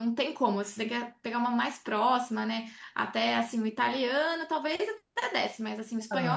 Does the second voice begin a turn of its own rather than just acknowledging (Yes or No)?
No